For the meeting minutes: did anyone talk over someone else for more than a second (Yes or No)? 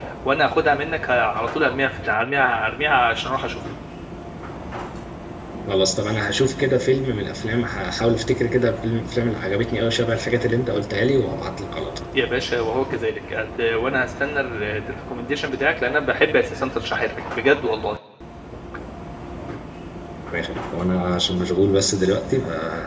No